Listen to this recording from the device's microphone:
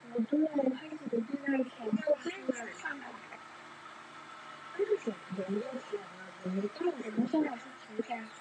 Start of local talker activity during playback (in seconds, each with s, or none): none